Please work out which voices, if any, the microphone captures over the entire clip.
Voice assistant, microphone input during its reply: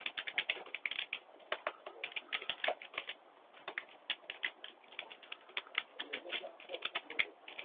neither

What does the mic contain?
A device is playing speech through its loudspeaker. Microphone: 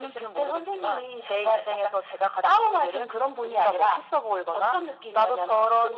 echo only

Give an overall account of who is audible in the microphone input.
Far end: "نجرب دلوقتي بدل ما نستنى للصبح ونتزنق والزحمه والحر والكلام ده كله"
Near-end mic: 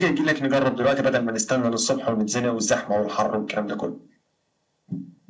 echo only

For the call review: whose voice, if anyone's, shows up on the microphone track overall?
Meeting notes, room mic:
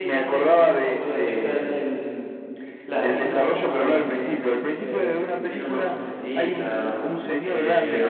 both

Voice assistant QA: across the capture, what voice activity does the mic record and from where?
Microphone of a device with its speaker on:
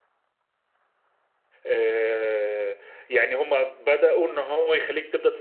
user only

